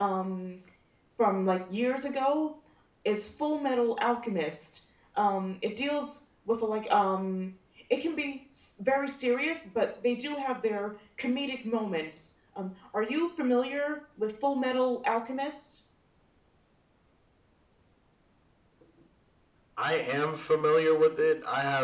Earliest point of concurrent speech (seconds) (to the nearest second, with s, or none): none